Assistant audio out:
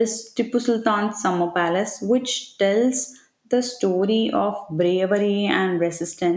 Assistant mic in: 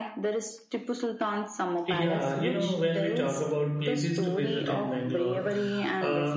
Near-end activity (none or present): present